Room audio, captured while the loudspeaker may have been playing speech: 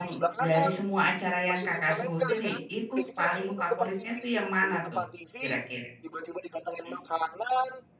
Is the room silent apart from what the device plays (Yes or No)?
No